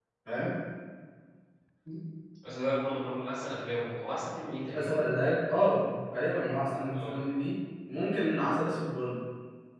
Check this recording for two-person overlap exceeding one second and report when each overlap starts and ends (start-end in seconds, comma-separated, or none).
none